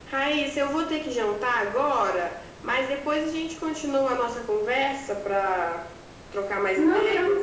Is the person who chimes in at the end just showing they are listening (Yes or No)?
No